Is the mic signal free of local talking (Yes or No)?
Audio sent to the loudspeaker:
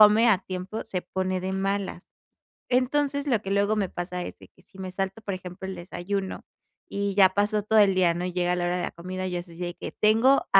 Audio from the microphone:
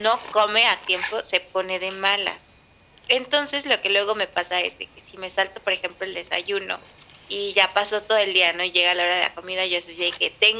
Yes